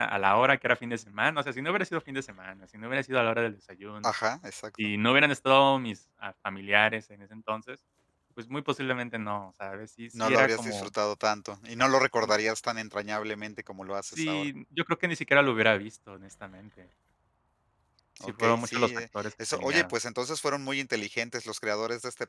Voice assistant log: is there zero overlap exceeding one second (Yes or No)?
No